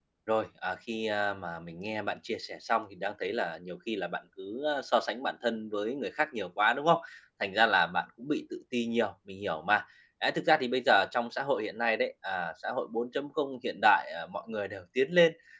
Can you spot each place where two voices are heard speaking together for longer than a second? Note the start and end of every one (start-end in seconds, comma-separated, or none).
none